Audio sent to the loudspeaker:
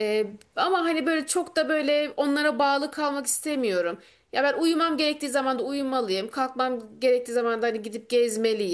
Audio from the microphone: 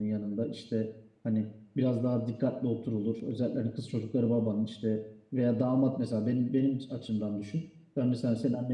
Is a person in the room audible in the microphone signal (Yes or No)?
Yes